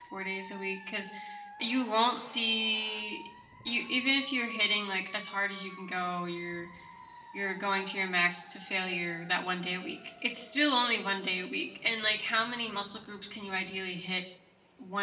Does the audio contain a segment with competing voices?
No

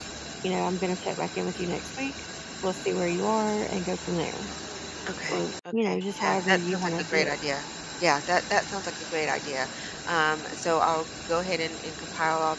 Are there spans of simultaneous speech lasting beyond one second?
Yes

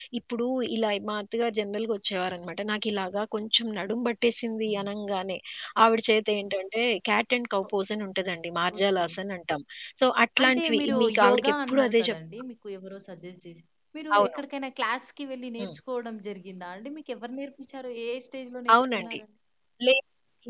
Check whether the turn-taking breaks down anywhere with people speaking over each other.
Yes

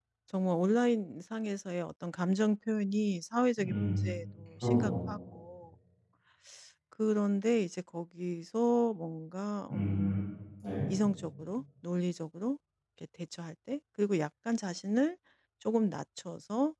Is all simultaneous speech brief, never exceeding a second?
Yes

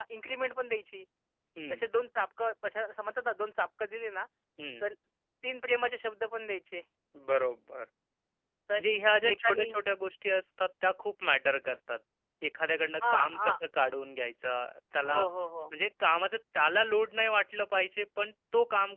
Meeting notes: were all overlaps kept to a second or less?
Yes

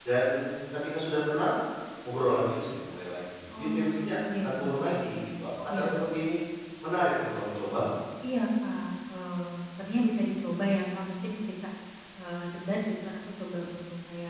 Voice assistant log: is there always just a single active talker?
No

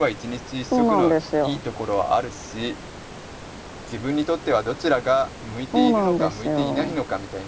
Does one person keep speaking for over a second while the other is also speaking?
Yes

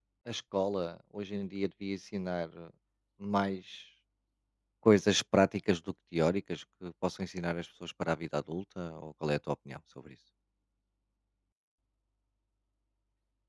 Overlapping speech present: No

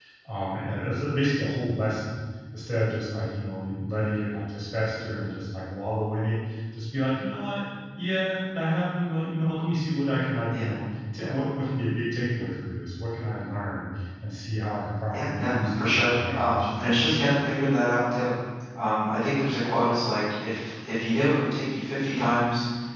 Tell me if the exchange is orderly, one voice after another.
No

